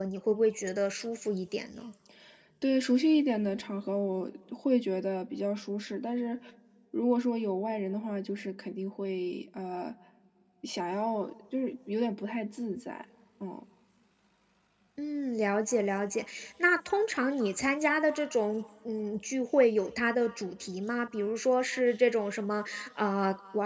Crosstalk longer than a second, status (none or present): none